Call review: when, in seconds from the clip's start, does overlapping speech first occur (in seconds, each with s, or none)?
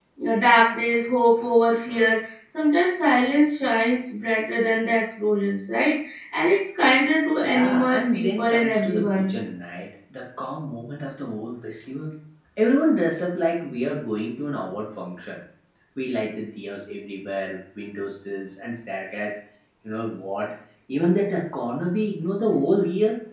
7.4 s